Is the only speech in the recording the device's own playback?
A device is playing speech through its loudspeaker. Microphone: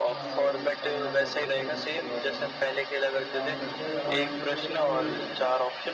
No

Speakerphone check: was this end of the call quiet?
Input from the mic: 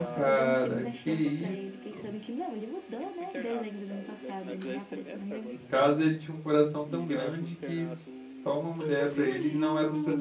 No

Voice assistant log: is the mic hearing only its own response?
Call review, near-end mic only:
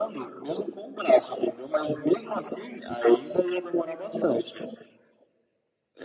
Yes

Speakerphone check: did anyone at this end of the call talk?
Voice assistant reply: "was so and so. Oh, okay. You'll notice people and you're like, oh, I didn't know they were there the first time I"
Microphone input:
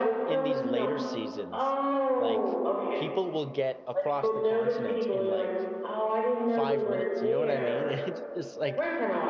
Yes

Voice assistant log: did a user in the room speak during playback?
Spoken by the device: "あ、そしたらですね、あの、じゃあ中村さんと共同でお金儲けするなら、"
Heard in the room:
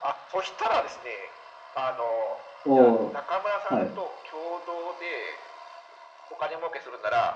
Yes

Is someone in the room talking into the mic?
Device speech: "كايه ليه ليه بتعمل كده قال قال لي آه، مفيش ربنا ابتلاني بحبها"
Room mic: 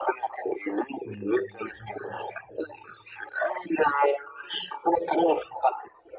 Yes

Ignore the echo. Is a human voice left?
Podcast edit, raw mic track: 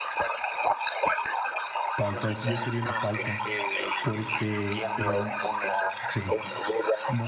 Yes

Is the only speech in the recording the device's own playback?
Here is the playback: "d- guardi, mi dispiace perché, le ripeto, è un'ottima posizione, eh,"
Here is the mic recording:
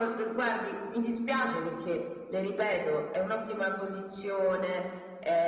Yes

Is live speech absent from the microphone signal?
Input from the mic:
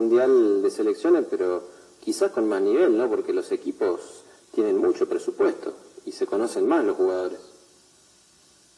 Yes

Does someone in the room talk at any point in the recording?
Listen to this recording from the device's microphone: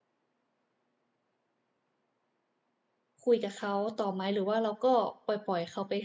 Yes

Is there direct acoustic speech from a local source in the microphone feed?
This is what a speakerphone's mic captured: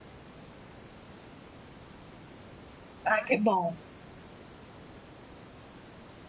Yes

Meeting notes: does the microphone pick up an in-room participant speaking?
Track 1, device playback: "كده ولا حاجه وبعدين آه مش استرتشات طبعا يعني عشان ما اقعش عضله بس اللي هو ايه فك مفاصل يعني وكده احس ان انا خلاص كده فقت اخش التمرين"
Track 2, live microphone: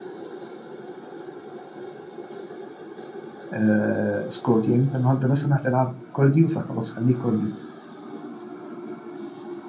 Yes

